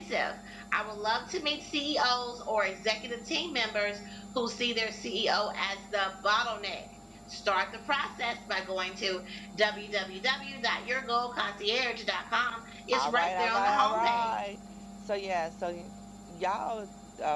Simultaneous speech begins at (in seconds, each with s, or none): 12.9 s